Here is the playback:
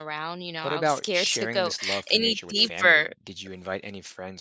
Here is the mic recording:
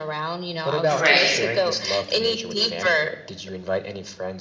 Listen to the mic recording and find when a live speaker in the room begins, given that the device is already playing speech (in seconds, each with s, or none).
0.9 s